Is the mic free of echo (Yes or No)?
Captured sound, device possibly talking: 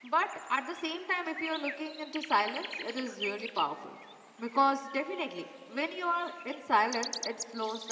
Yes